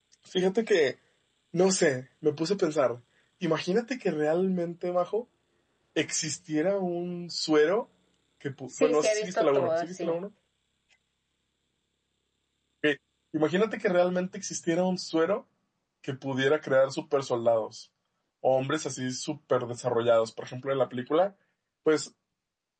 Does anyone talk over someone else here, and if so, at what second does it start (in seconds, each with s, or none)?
8.8 s